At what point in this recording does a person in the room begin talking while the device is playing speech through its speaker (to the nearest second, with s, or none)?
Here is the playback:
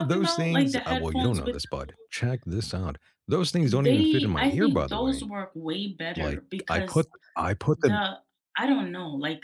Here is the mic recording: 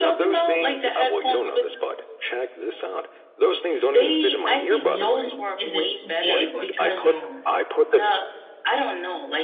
5 s